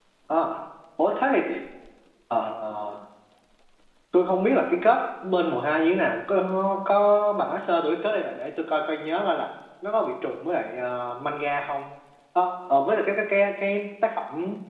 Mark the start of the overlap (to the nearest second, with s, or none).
none